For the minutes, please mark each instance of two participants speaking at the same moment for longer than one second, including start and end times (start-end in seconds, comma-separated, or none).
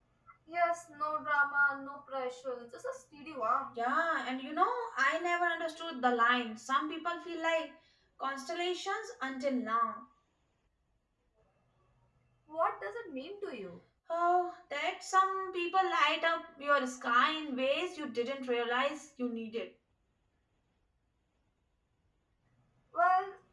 none